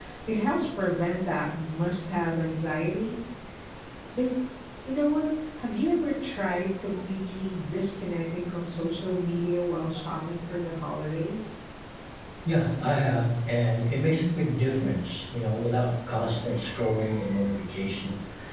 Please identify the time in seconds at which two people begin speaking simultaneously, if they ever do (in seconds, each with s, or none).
none